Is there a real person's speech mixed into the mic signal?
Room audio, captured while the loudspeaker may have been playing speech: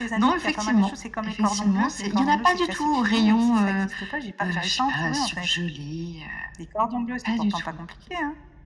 No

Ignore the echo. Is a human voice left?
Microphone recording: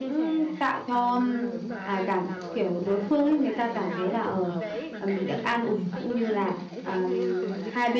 Yes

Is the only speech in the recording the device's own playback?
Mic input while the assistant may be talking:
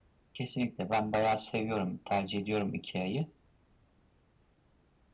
No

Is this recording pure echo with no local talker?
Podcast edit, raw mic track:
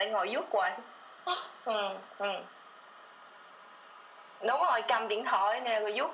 Yes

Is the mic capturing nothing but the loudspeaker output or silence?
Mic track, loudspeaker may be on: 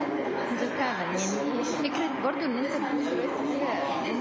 No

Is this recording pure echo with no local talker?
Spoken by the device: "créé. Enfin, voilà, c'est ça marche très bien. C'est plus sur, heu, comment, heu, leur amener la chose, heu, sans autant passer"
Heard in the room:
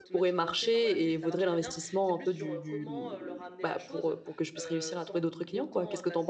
No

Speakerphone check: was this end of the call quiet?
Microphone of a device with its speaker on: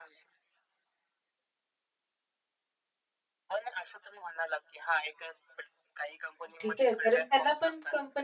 No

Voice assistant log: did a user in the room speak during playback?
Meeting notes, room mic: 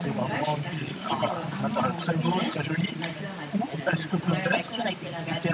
Yes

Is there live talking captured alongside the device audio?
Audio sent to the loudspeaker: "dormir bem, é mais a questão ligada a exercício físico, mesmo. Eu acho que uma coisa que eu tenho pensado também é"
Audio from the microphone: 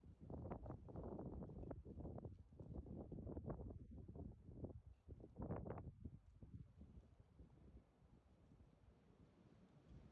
No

